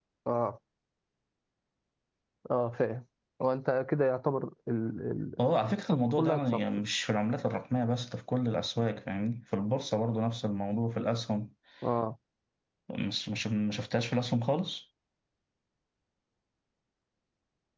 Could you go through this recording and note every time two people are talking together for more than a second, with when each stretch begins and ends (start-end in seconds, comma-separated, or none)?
5.4-6.6